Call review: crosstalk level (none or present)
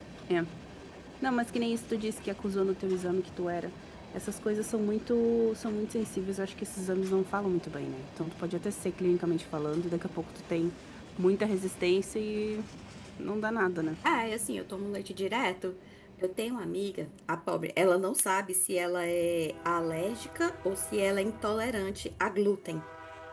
none